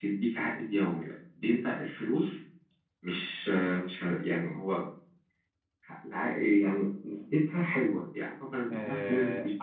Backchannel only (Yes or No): No